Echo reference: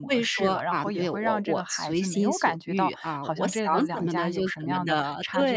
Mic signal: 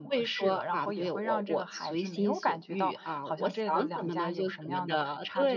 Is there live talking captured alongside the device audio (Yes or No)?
No